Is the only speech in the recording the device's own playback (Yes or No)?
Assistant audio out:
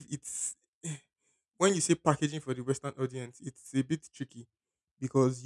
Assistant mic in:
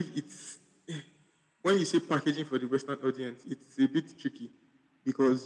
Yes